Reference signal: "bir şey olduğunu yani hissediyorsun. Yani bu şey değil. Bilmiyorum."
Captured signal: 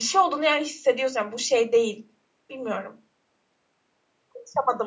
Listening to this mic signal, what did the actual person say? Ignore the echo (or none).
none